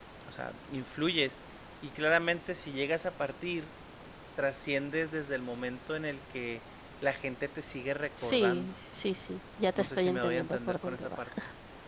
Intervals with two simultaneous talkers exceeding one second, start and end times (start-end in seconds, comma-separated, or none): 9.8-11.3